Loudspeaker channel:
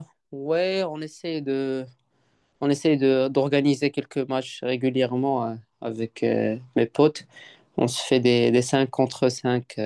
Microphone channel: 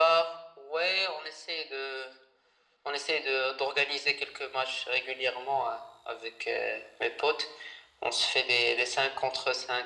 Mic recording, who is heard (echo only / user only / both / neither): echo only